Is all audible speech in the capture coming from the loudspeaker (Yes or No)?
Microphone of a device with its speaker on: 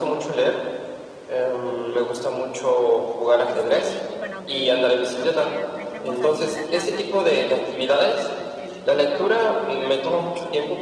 No